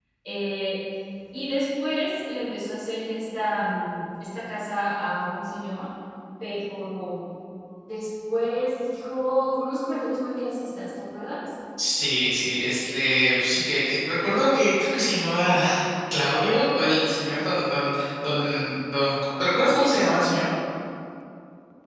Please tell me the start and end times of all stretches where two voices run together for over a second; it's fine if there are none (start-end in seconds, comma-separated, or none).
none